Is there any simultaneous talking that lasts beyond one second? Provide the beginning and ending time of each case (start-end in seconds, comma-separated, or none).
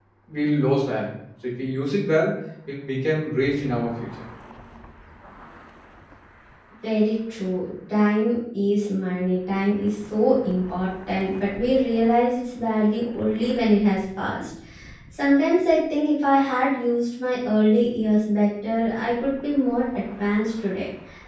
none